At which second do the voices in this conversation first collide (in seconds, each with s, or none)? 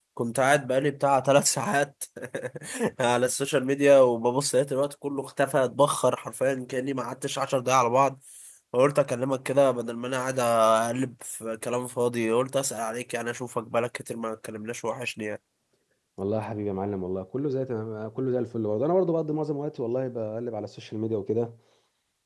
none